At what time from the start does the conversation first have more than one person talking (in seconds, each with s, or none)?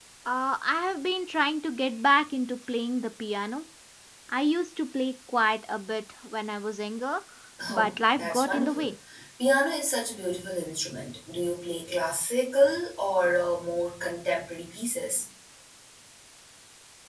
7.7 s